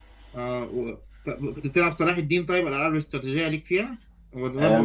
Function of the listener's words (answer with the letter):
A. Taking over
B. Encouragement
A